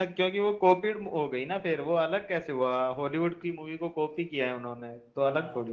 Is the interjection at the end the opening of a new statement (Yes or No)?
Yes